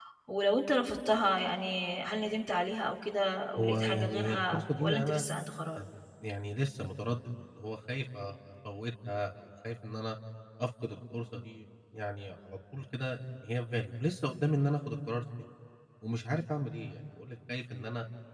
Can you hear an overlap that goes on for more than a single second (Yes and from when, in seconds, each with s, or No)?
Yes, from 3.6 s